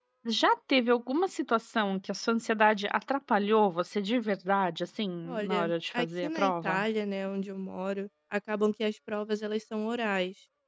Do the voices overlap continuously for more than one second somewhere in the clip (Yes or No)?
Yes